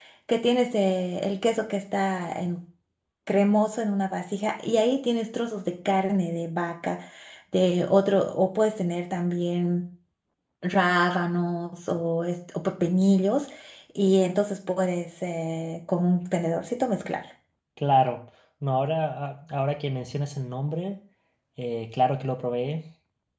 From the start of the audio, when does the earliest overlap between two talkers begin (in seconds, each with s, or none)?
none